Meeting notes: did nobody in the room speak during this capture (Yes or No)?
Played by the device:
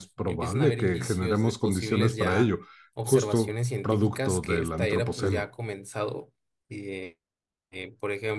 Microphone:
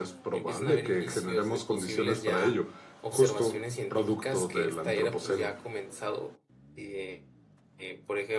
Yes